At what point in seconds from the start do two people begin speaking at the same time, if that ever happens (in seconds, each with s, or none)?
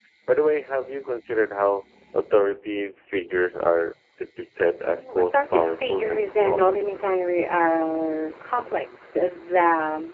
4.8 s